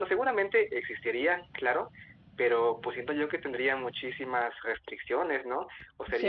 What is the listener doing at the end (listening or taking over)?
taking over